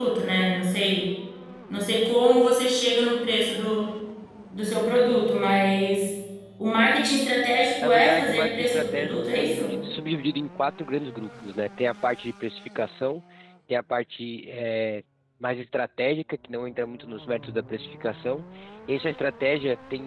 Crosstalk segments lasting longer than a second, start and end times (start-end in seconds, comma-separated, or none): 7.8-9.7